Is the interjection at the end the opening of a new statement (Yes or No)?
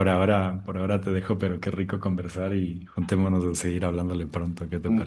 Yes